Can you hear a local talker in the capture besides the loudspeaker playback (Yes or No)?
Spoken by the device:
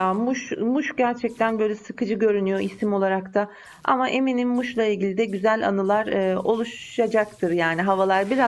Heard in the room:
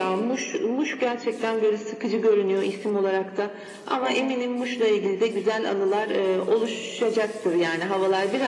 Yes